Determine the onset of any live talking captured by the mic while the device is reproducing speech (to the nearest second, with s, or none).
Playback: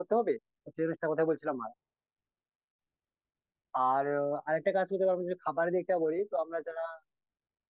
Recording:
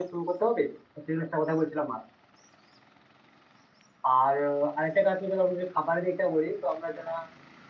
none